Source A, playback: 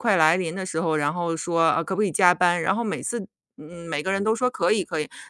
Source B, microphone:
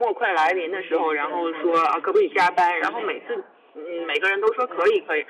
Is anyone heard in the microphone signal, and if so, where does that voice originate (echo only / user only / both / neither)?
both